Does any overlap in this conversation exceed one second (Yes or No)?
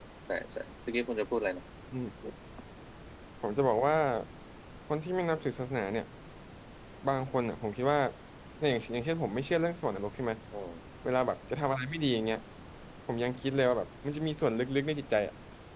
No